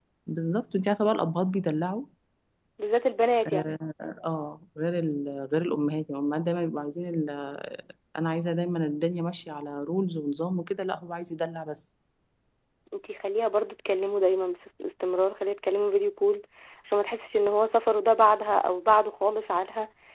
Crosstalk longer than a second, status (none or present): none